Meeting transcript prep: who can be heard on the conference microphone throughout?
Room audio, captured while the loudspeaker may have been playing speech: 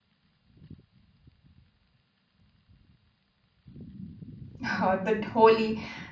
user only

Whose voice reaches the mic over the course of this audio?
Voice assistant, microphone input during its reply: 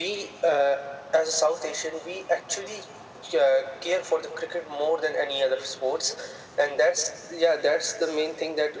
echo only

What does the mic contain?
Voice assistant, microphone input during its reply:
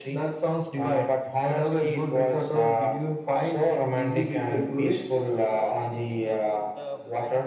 both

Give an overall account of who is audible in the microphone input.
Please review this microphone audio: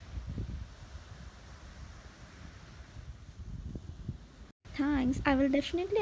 user only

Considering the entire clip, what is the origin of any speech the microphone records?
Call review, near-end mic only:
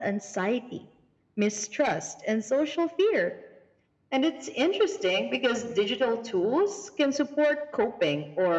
echo only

